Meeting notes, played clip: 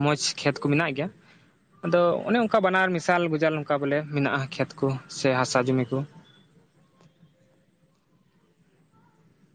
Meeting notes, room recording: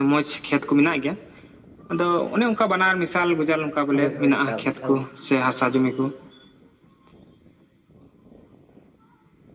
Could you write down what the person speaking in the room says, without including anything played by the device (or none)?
ᱦᱳᱭ ᱦᱳᱭ ᱮᱠᱟᱞ ᱮᱠᱟᱞ